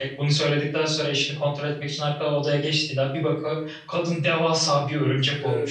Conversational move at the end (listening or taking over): taking over